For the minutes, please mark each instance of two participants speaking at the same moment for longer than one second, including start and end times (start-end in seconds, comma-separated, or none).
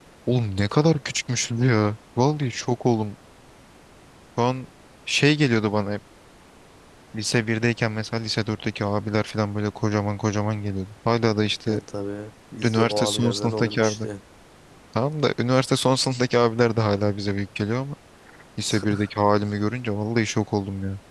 12.6-14.1